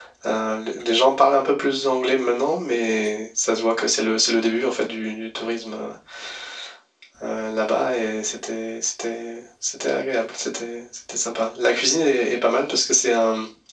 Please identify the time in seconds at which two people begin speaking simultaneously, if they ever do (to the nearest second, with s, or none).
none